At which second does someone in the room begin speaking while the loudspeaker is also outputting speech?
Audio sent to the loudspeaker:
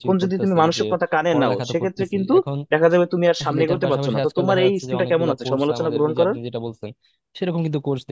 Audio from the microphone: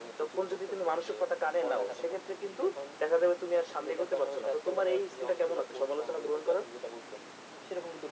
none

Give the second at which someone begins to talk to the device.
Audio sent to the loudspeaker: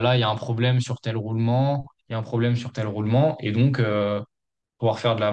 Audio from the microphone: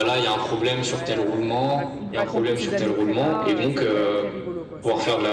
1 s

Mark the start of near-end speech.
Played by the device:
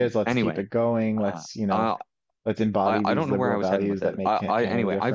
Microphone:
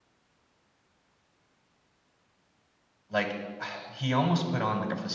3 s

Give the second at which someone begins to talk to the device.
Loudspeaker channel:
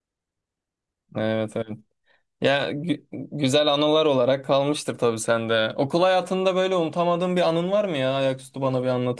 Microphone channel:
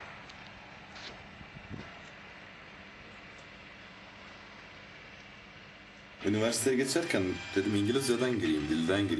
6 s

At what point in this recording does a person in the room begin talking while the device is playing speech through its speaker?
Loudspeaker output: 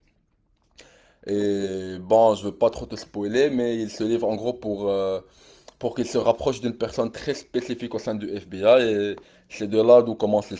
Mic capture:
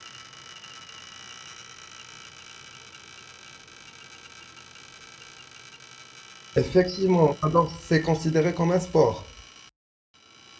7 s

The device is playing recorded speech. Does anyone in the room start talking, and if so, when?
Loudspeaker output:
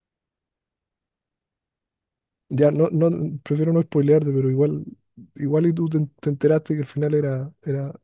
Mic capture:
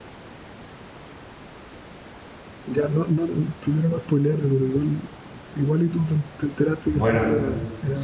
7 s

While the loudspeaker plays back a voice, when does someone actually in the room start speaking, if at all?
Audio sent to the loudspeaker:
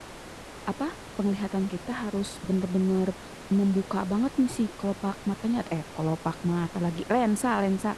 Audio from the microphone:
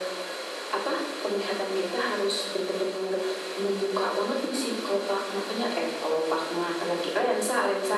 none

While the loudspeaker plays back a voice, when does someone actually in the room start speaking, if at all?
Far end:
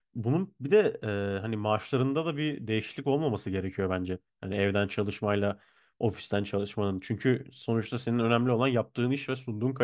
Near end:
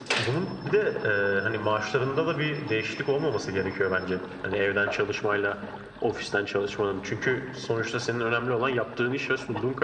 none

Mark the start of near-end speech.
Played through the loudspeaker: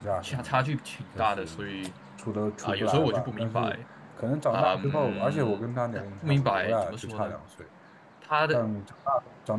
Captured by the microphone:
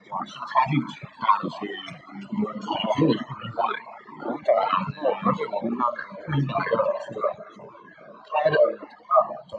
none

